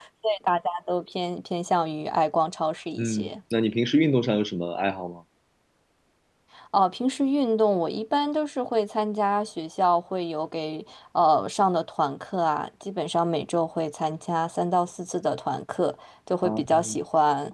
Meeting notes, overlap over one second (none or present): none